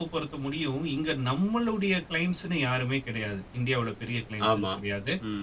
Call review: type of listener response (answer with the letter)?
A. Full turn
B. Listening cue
B